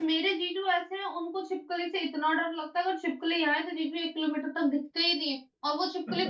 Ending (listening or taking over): listening